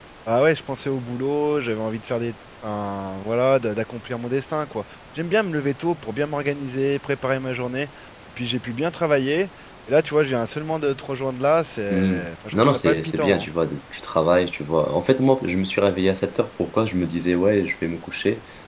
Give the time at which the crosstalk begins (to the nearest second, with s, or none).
12 s